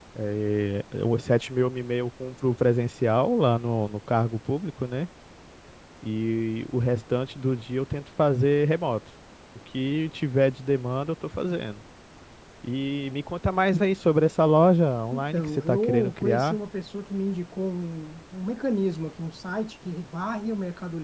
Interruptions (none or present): present